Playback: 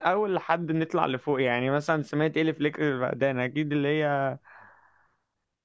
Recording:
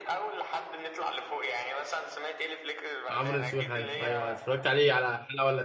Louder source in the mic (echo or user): user